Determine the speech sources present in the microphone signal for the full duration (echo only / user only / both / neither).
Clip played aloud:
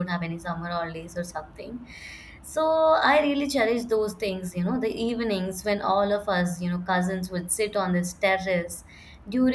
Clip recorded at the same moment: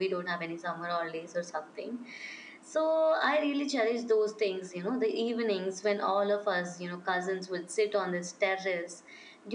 echo only